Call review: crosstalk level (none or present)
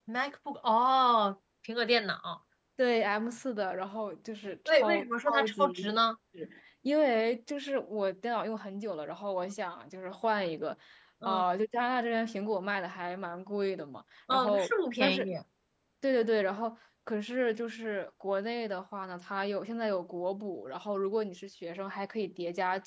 present